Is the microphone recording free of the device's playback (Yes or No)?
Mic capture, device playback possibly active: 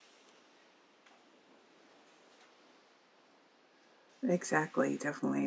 Yes